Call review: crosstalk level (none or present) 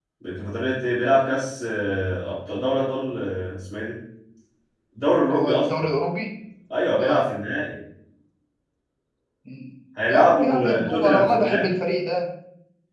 present